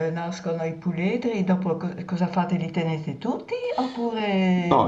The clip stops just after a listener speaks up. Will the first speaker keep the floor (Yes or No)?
No